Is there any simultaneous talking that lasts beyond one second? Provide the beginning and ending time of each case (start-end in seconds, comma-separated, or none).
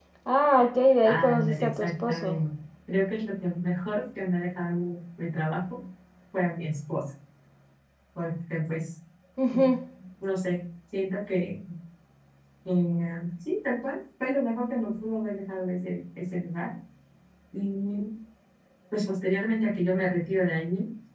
1.0-2.4